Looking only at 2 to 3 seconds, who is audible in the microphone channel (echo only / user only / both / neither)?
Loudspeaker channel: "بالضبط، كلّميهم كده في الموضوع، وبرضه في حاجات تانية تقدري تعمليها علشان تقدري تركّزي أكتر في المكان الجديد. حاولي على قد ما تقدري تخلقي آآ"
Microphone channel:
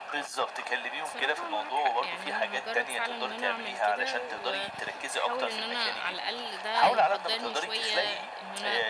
both